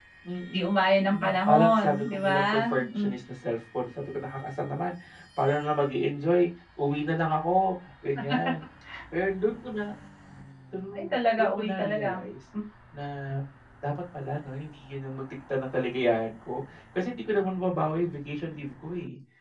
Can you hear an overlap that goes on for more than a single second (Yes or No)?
Yes